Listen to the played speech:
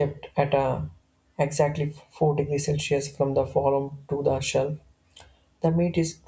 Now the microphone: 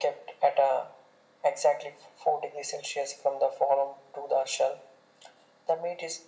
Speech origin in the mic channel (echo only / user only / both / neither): echo only